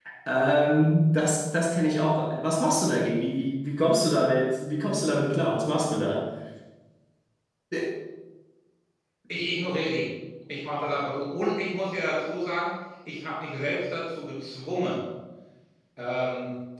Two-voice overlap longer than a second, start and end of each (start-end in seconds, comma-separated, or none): none